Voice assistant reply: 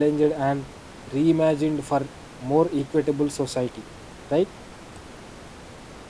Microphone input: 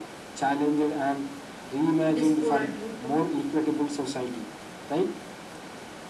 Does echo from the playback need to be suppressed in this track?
Yes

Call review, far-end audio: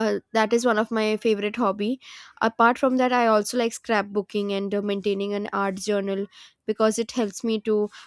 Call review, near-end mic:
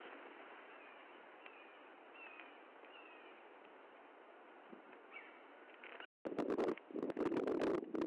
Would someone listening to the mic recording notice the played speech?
No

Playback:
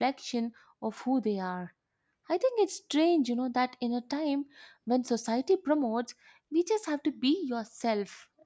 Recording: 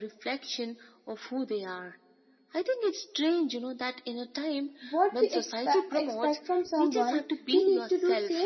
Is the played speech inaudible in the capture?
No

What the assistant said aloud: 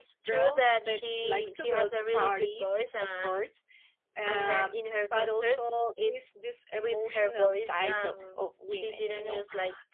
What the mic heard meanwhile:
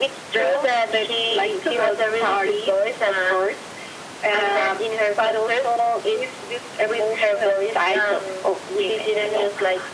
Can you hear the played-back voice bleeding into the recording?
Yes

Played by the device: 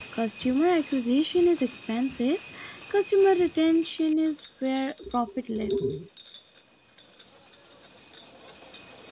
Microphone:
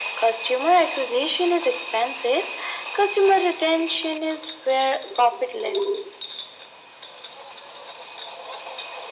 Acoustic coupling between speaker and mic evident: Yes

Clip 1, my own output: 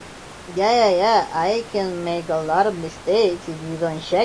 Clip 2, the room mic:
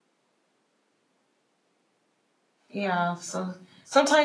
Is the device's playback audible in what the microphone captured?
No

